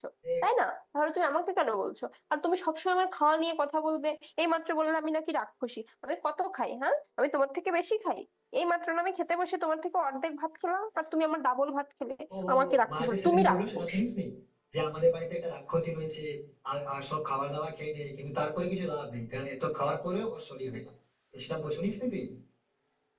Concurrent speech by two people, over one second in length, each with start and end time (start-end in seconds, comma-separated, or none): 12.5-13.9